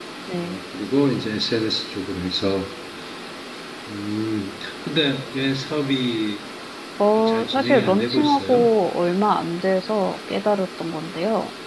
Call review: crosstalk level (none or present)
present